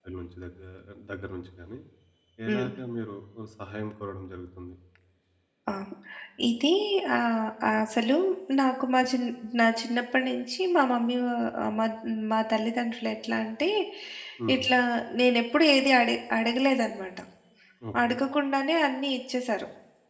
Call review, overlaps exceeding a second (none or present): none